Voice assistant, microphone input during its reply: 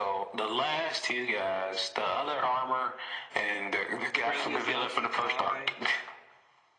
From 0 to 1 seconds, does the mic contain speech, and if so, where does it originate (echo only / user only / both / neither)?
echo only